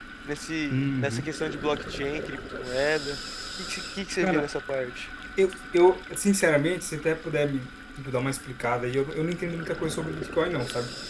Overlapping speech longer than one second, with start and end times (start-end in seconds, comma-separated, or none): none